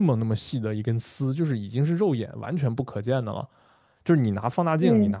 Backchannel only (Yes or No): Yes